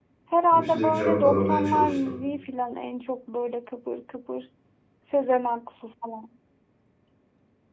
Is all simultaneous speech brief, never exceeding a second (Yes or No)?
No